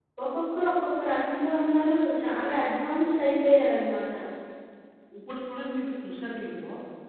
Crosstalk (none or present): none